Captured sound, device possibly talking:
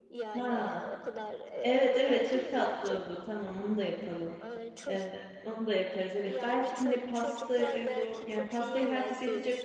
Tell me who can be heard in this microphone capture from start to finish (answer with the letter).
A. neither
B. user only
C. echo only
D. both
D